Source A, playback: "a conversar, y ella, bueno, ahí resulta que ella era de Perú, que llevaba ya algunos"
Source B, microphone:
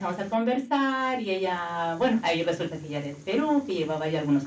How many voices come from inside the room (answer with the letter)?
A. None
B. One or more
A